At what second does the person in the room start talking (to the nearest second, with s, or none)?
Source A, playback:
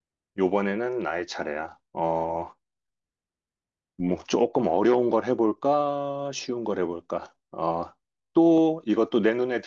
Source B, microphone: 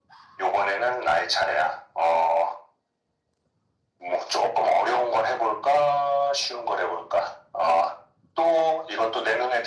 none